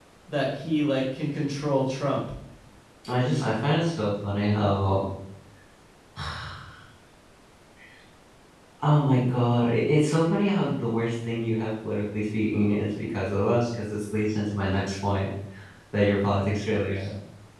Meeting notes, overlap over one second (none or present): none